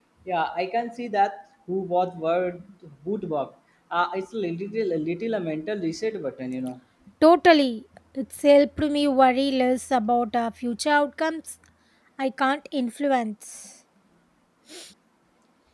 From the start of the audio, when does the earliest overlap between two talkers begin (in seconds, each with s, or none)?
none